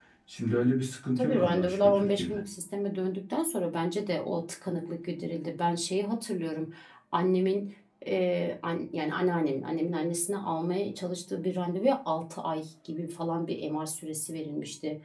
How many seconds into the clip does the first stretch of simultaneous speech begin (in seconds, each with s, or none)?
1.2 s